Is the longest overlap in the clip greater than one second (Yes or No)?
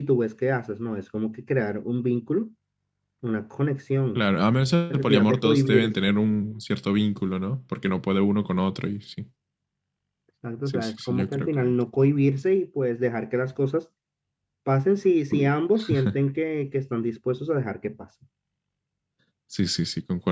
Yes